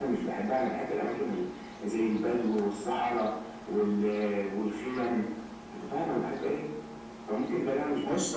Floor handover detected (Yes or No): Yes